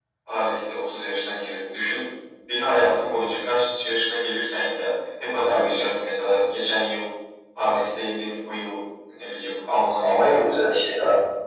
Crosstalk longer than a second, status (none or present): none